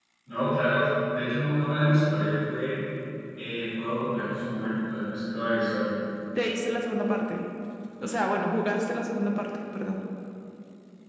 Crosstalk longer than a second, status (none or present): none